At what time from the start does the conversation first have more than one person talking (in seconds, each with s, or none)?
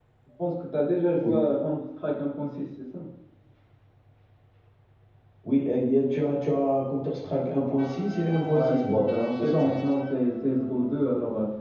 8.5 s